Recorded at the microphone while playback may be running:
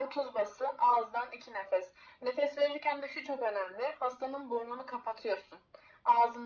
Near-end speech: none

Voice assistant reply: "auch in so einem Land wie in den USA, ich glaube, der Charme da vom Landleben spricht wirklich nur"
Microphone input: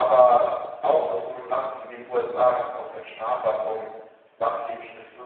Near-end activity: none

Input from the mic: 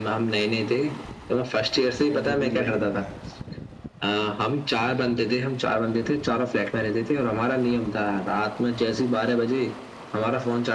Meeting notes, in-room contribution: present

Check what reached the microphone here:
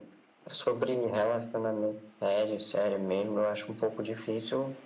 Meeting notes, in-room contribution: none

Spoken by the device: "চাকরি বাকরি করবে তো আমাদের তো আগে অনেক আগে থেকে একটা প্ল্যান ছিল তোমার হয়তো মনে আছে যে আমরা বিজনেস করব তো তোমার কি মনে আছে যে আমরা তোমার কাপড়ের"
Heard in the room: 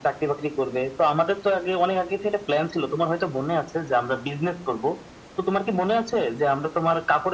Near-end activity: none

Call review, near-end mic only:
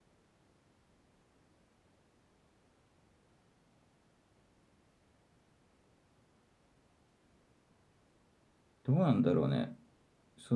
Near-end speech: present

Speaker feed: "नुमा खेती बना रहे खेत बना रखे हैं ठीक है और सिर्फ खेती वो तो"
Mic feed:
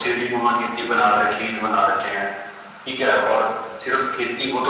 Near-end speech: none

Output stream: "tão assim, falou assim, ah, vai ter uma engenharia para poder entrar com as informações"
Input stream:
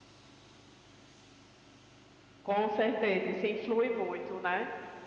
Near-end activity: present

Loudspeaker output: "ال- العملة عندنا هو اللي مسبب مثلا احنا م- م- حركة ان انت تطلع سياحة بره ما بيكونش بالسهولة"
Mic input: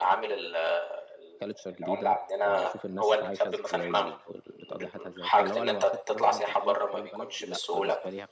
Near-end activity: present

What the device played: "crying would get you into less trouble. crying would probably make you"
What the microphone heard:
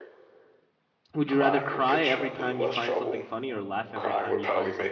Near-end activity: present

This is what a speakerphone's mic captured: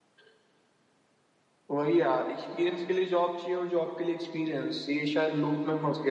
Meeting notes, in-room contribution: none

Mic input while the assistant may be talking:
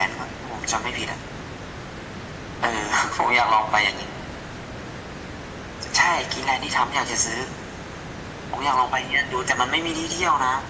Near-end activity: none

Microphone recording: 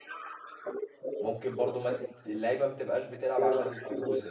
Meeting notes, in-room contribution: present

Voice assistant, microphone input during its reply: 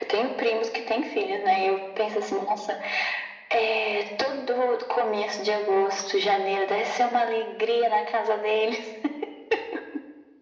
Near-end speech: none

